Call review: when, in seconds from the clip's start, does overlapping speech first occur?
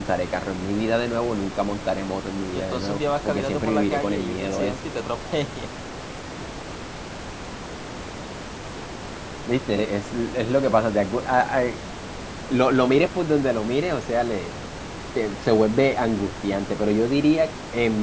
2.5 s

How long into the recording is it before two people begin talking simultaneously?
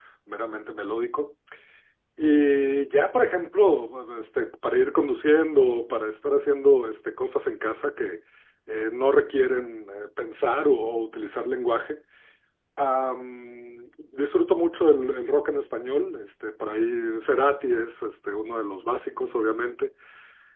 none

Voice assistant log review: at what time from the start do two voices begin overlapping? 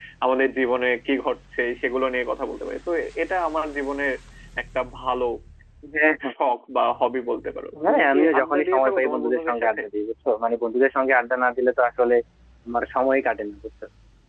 7.7 s

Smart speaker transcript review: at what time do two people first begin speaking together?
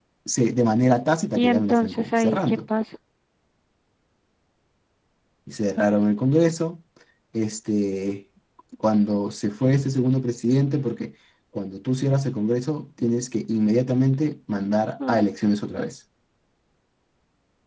1.4 s

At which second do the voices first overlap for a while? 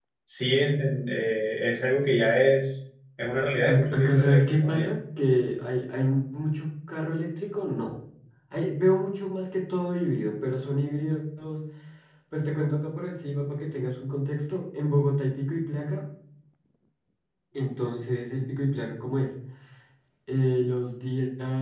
3.7 s

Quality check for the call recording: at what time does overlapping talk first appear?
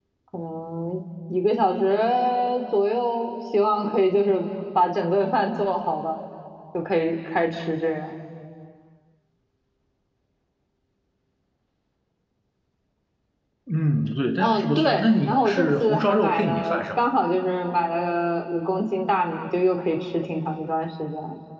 14.4 s

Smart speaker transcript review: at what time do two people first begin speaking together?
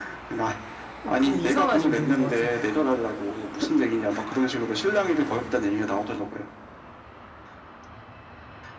1.1 s

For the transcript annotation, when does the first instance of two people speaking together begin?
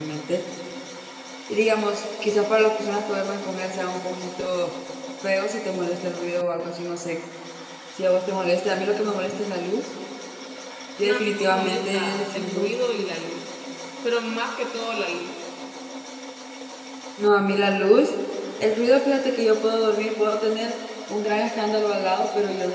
11.1 s

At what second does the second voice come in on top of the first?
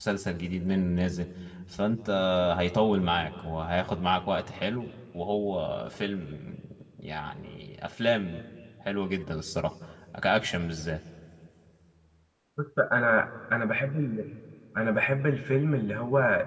none

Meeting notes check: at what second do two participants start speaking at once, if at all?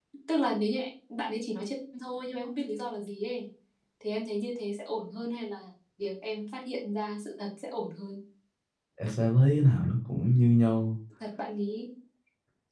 none

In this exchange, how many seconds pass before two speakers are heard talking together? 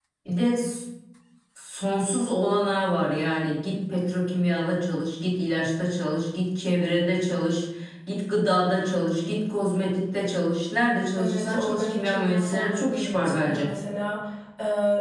11.2 s

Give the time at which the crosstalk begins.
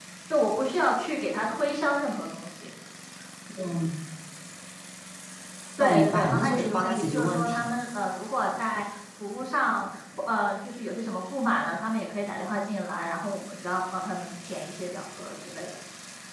5.8 s

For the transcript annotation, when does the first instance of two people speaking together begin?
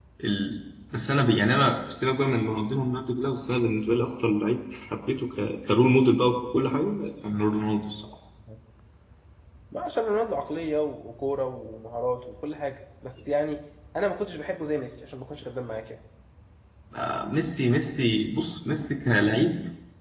none

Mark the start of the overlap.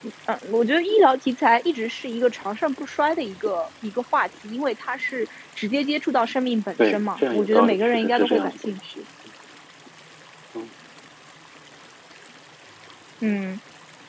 6.8 s

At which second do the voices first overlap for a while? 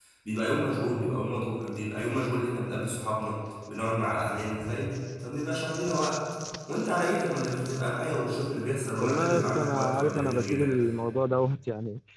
9.0 s

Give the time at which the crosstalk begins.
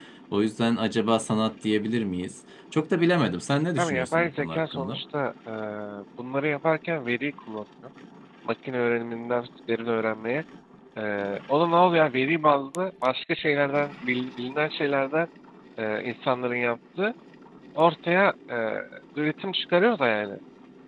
3.8 s

